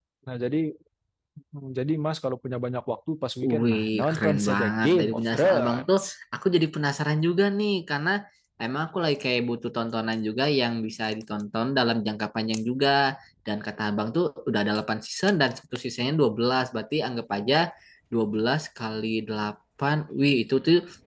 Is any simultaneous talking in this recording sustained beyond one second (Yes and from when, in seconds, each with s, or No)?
Yes, from 3.4 s